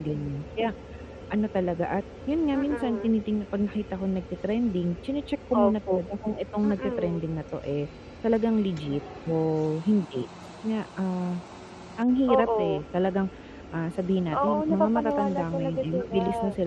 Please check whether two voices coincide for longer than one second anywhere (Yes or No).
Yes